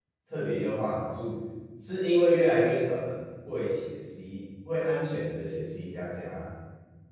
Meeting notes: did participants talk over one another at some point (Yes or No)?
No